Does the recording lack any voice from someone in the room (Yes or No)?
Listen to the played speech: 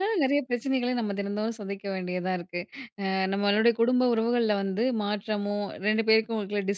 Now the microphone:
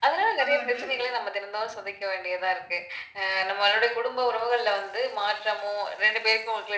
No